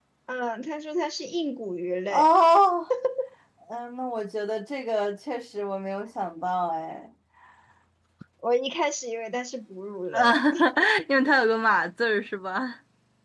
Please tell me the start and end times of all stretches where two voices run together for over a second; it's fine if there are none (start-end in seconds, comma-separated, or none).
none